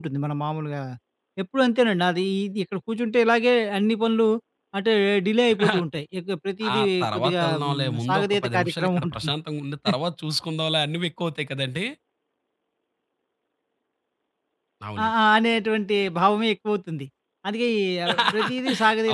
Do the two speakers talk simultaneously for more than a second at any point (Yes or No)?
Yes